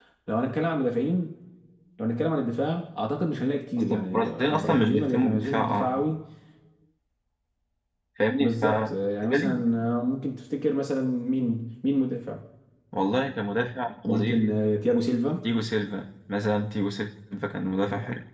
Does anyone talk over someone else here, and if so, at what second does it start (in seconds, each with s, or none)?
3.8 s